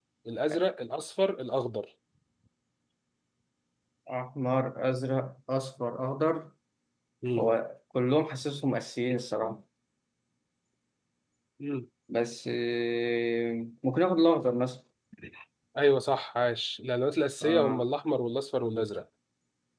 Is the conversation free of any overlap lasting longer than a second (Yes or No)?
Yes